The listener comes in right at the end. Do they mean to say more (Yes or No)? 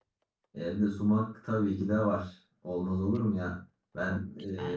No